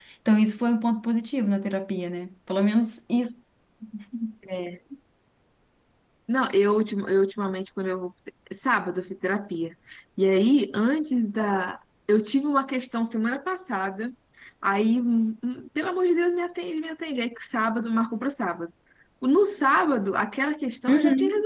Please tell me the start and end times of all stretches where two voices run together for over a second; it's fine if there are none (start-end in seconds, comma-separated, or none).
none